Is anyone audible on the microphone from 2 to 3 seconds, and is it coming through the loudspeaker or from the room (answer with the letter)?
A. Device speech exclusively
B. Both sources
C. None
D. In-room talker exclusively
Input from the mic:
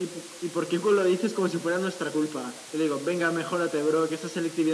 A